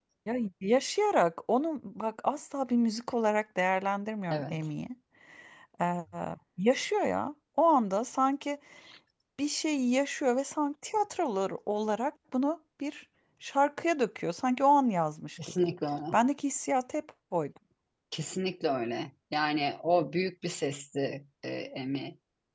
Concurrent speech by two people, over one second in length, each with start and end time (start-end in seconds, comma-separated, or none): none